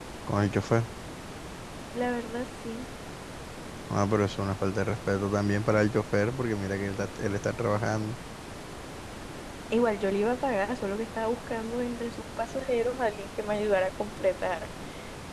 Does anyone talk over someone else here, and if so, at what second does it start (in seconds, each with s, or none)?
none